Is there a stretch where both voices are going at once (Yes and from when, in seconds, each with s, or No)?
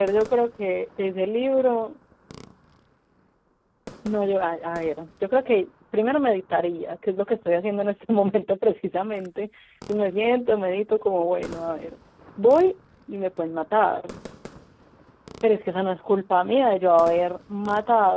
No